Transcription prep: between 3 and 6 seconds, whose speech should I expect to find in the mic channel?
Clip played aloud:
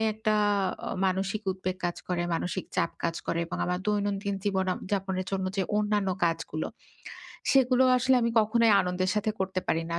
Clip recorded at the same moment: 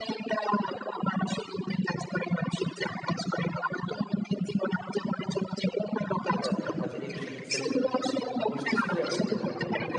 echo only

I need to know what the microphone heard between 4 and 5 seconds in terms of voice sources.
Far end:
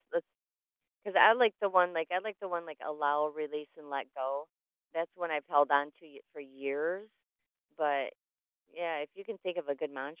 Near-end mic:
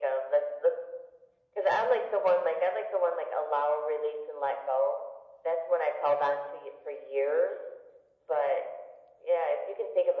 echo only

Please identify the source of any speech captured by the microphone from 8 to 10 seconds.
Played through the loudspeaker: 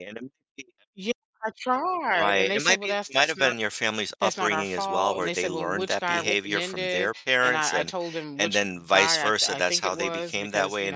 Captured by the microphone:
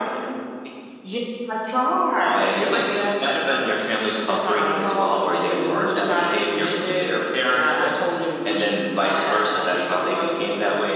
echo only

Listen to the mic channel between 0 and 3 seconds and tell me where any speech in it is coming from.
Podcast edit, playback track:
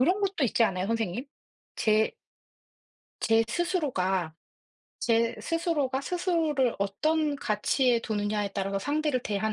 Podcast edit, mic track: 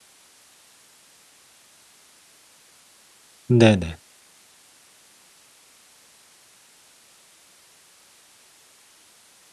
neither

